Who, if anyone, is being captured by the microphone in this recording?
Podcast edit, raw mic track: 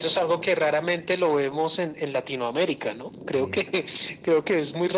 both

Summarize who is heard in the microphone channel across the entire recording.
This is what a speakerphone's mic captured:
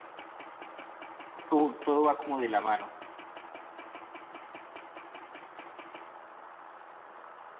user only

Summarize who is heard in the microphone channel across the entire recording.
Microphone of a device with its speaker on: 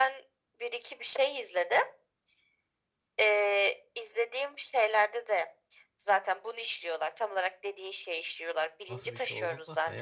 both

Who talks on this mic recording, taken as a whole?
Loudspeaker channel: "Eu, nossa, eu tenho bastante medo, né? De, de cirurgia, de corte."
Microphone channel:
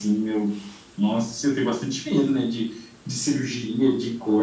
echo only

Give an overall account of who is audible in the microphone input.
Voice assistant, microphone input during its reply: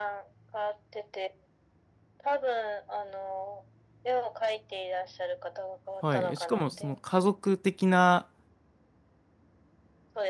both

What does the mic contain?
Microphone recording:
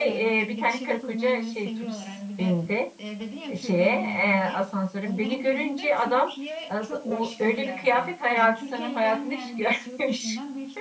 both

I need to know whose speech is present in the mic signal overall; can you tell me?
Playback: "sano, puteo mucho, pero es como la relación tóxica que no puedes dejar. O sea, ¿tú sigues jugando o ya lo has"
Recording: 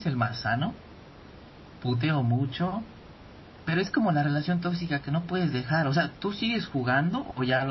echo only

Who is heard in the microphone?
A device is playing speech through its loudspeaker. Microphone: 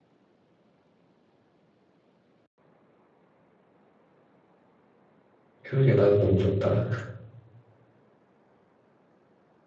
user only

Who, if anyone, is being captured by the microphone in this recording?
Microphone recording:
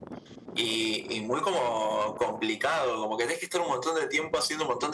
echo only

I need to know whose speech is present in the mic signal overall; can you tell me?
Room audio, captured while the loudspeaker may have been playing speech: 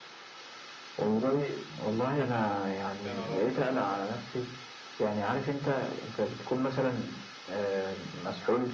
both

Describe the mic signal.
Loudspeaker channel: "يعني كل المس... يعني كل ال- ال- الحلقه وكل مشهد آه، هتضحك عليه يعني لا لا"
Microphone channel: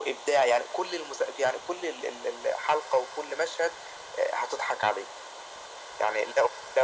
echo only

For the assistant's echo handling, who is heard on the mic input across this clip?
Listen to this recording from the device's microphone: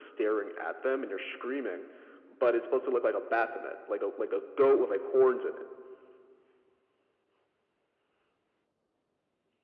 echo only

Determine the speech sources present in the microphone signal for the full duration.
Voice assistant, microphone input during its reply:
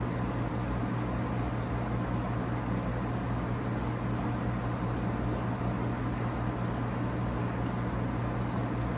neither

